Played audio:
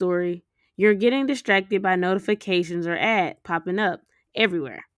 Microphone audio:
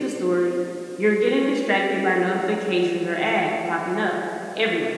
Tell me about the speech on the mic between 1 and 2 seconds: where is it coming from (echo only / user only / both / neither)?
echo only